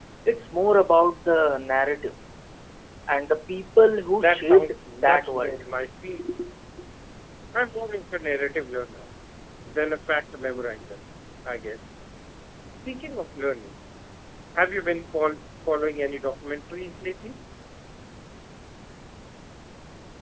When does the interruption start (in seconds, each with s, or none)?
4.2 s